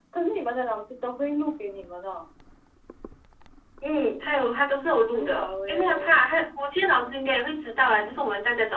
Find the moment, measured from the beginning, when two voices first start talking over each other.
4.1 s

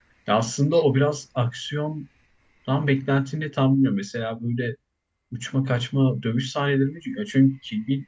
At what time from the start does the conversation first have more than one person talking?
none

